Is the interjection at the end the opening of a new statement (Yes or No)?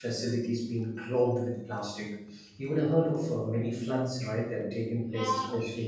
Yes